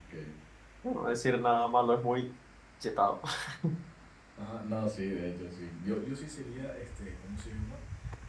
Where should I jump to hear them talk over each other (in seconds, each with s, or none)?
none